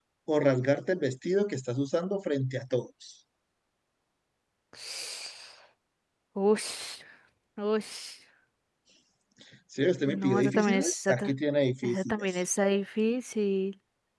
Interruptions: present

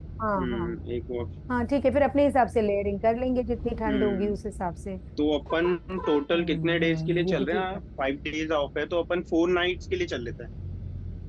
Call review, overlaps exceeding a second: present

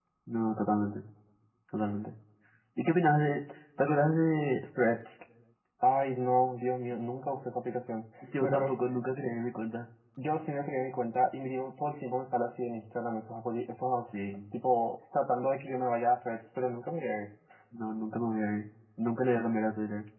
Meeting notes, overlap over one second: none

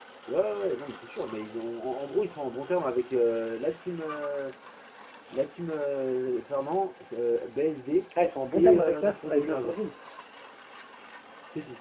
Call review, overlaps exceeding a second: present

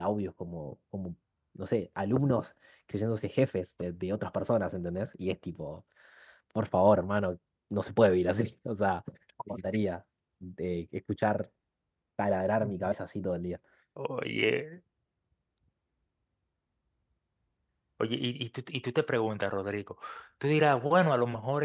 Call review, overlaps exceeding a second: none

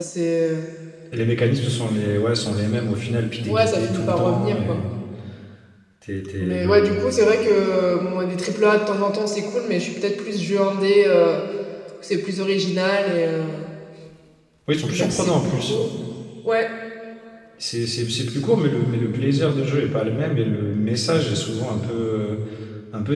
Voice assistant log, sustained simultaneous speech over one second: present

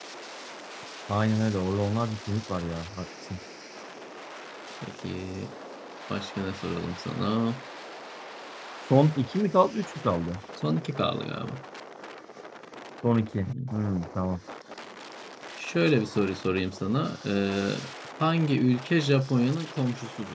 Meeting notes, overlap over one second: none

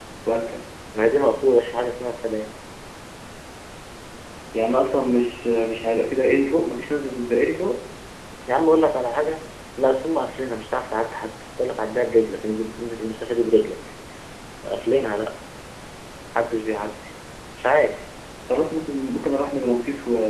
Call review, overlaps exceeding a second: none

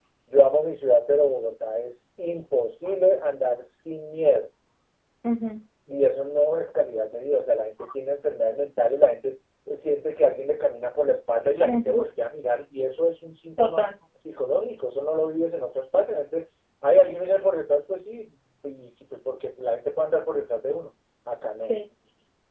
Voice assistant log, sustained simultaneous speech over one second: none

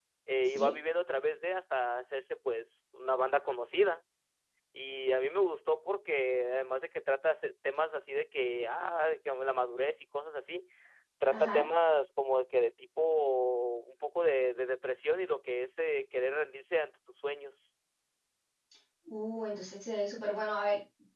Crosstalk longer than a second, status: none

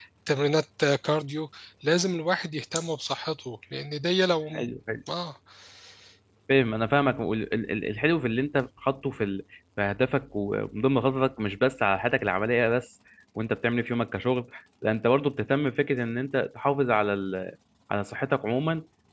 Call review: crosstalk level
none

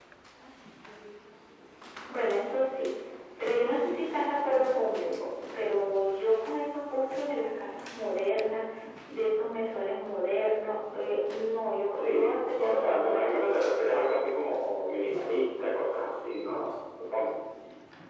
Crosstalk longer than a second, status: present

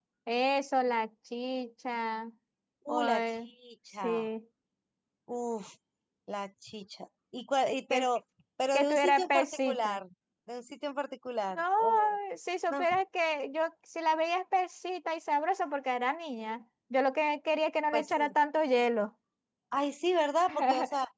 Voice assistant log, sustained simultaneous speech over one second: present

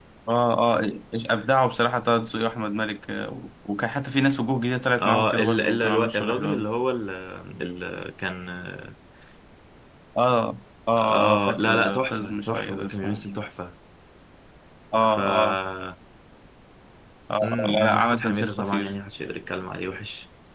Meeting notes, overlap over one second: present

